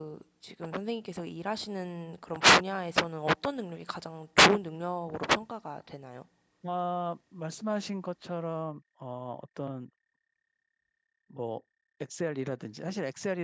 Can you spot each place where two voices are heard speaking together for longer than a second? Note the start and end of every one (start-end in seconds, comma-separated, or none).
none